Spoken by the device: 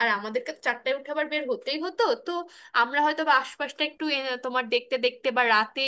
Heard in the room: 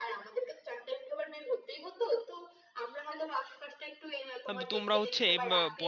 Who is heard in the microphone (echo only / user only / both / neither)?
both